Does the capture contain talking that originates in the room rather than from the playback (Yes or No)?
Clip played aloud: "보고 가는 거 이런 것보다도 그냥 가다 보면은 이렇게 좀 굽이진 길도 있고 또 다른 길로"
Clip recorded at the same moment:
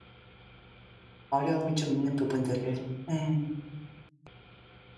Yes